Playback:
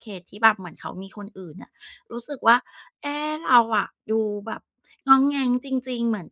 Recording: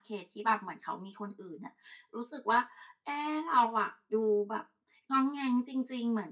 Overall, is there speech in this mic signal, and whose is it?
echo only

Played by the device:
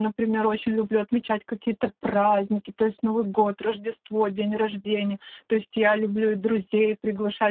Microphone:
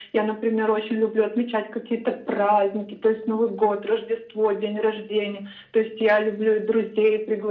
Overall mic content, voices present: echo only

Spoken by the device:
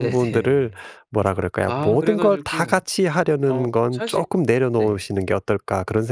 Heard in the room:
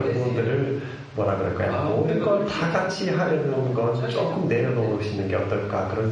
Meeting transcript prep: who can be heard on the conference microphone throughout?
both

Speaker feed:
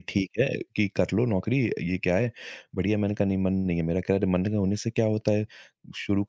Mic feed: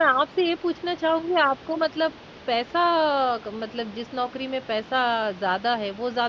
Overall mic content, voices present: user only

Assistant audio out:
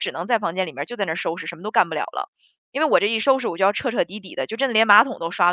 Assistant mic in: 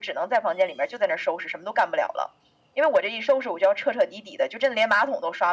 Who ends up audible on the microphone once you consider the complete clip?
echo only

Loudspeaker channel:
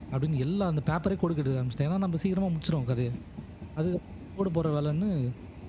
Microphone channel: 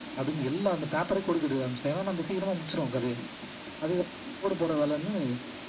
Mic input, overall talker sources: echo only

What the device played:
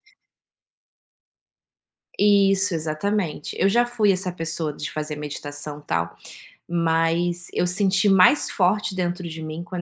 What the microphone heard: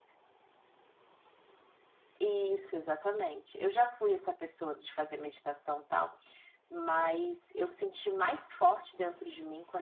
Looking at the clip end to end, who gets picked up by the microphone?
echo only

